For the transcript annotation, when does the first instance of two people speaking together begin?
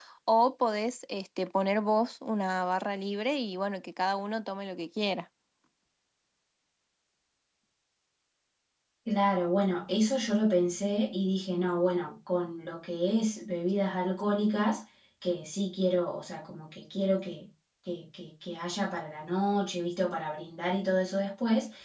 none

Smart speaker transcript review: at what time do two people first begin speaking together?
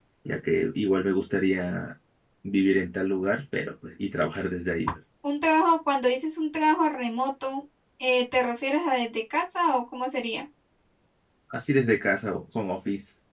none

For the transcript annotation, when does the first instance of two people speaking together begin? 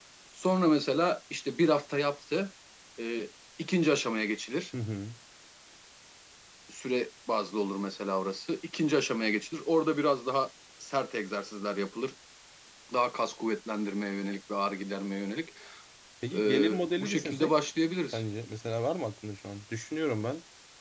16 s

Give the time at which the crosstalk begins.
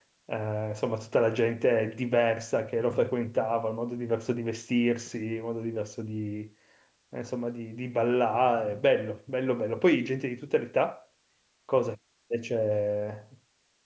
none

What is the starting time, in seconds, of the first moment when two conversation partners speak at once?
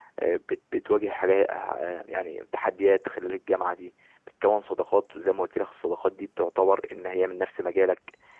none

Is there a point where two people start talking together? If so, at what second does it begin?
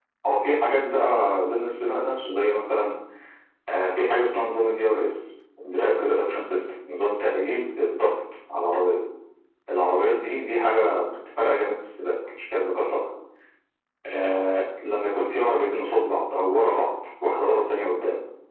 none

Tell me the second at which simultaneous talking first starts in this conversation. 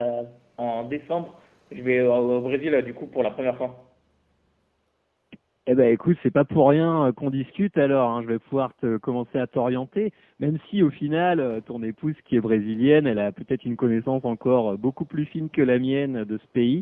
none

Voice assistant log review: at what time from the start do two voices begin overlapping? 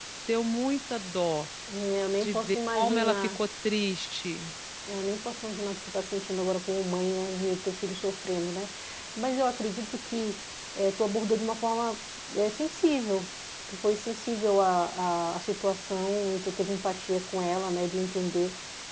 2 s

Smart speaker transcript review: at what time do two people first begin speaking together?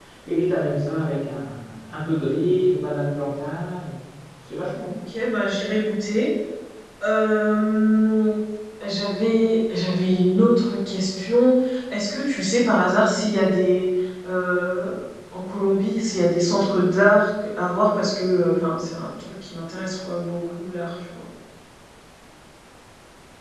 none

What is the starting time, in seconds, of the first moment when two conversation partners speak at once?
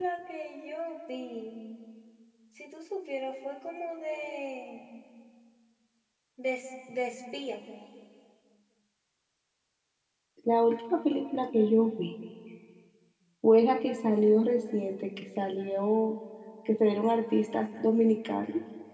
none

